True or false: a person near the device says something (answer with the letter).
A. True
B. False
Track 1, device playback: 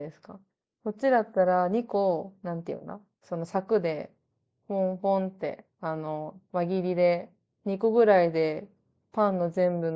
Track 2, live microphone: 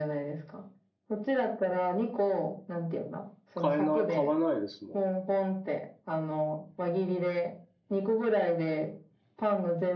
A